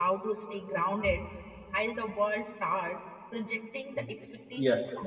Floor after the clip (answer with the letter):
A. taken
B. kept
A